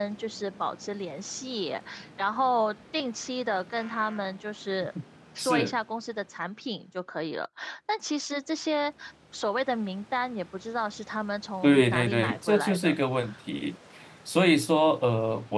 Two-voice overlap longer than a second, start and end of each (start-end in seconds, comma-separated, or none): 11.6-12.9